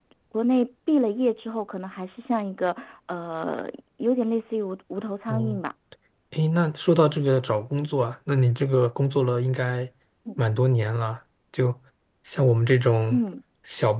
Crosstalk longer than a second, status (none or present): none